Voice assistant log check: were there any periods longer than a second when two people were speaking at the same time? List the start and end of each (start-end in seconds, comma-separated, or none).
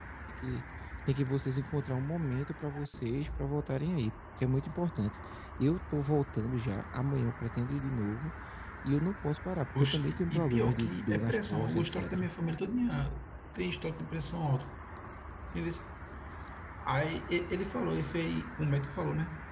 9.8-12.3